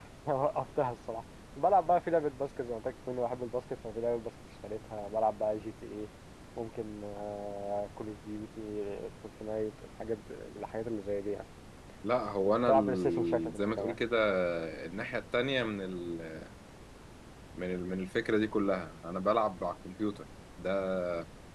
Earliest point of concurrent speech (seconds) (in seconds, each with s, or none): 12.7 s